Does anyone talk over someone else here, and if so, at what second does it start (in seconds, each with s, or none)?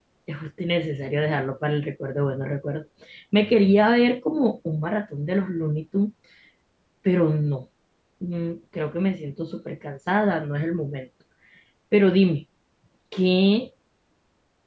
none